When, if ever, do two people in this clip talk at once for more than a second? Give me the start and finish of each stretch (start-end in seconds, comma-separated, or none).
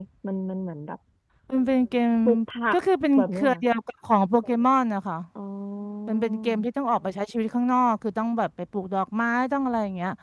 none